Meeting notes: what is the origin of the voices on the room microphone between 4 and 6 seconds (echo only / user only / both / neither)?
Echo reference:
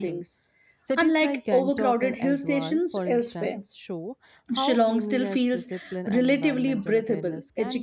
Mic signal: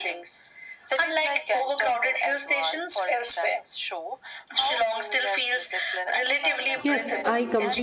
echo only